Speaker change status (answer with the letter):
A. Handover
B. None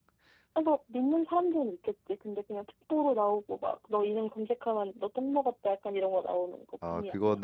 A